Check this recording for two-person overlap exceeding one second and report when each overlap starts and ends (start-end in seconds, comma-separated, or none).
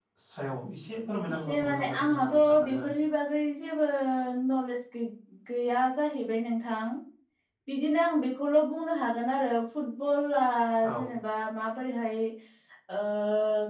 1.3-2.9